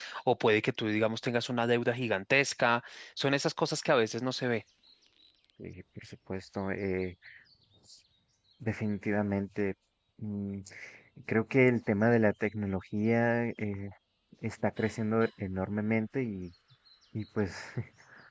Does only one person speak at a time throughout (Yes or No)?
Yes